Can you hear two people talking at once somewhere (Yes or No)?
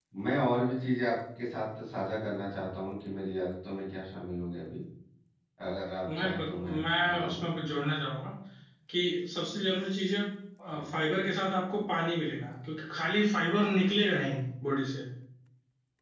Yes